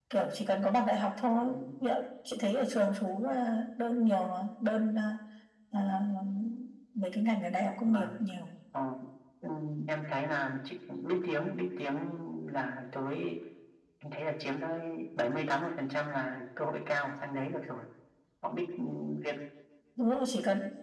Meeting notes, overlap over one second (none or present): none